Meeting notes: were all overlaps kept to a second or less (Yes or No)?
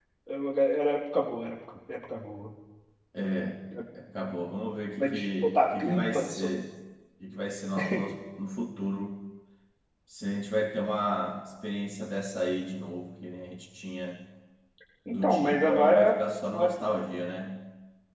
No